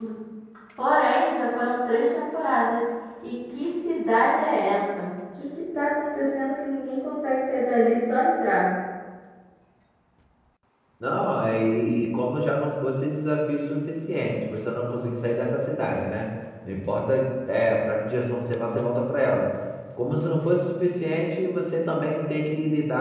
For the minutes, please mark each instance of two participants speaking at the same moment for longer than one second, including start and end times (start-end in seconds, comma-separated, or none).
none